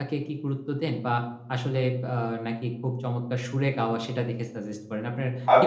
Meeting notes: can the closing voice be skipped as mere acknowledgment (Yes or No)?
No